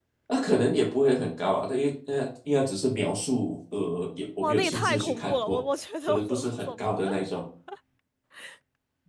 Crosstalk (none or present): present